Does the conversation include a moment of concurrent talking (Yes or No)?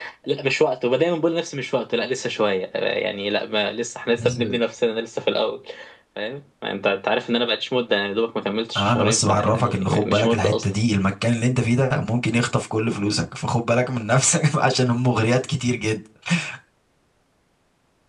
Yes